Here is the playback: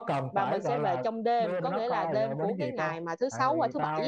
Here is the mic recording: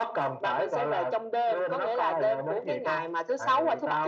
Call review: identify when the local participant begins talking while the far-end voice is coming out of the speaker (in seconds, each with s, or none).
none